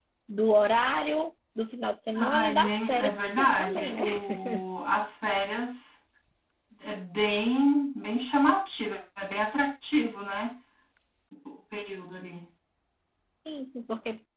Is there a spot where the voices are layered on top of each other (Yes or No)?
Yes